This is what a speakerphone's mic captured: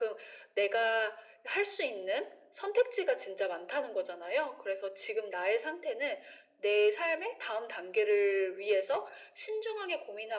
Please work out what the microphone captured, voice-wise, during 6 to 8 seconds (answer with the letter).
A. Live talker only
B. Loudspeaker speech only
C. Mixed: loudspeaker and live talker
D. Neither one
B